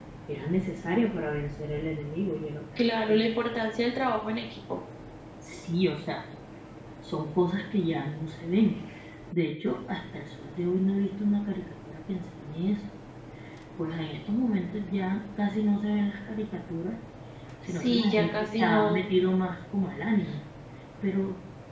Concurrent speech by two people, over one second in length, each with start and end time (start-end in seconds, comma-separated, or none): 17.6-19.1